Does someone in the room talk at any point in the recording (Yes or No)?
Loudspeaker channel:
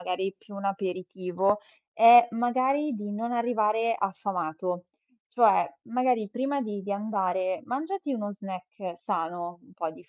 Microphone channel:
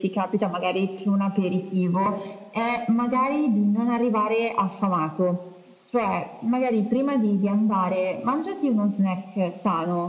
No